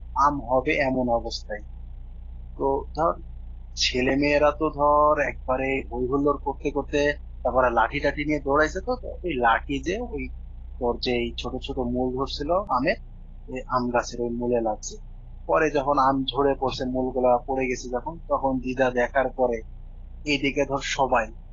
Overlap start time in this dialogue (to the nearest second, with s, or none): none